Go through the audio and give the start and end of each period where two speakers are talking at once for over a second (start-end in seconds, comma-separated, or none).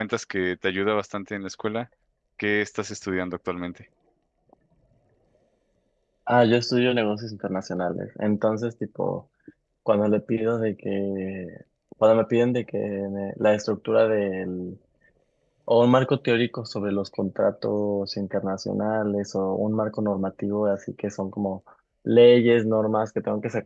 none